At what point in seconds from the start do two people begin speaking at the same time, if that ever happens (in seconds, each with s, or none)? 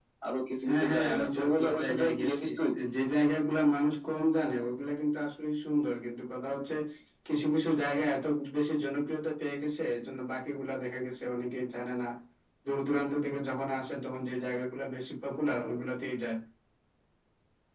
0.7 s